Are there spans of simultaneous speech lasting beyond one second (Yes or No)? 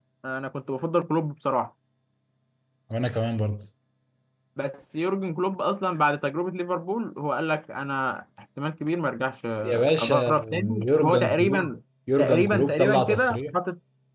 Yes